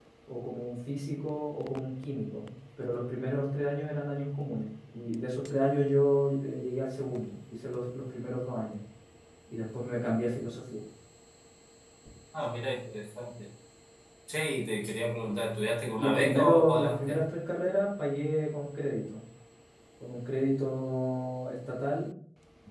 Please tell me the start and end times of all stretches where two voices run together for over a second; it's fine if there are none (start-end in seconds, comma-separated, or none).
16.0-17.2